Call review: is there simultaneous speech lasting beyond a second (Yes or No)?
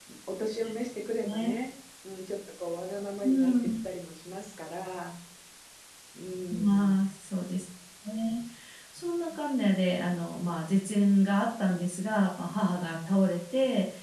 No